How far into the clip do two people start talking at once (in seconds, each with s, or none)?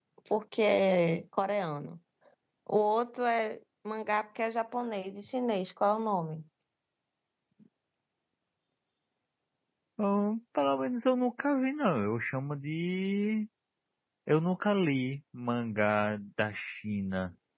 none